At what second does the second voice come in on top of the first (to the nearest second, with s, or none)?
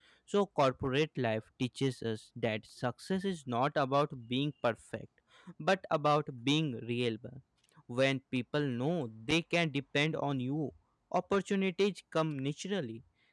none